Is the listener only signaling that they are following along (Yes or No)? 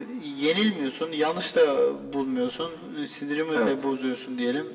Yes